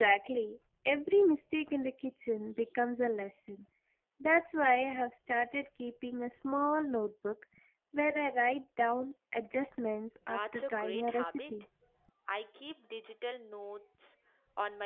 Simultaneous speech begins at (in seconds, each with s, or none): 10.2 s